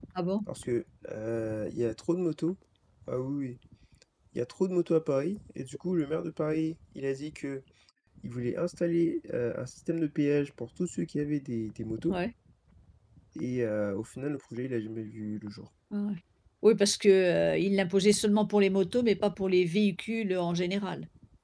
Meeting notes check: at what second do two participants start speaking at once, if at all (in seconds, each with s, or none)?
none